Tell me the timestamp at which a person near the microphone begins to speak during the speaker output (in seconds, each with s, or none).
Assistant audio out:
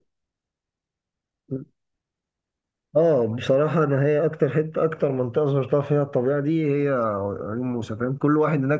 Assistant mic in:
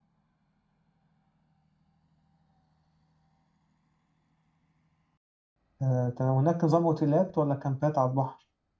5.8 s